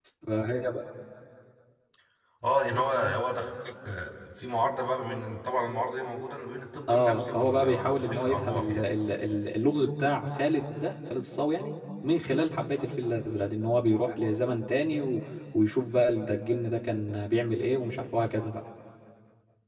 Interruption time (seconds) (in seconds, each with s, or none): 6.9 s